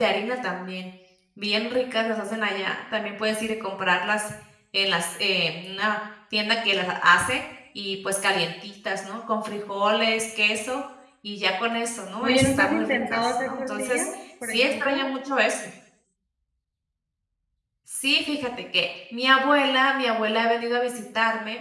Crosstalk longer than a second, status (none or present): present